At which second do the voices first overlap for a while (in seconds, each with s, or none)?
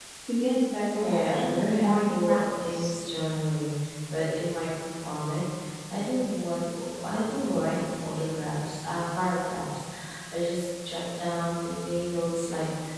1.0 s